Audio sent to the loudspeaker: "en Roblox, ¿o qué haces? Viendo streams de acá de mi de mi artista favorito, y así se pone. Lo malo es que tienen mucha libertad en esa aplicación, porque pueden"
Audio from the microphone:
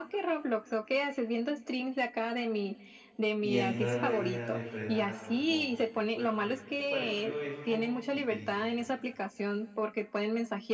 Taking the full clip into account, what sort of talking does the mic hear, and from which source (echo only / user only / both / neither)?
both